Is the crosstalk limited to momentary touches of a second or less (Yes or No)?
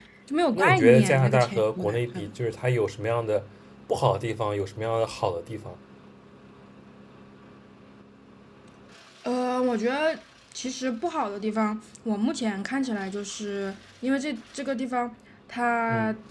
No